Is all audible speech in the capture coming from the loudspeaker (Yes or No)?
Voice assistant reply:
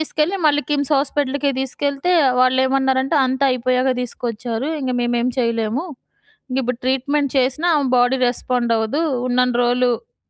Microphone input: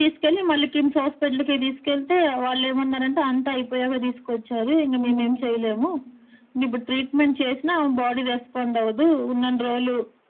No